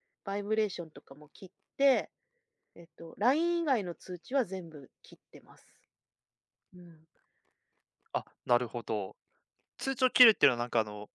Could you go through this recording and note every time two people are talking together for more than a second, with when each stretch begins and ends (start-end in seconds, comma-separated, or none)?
none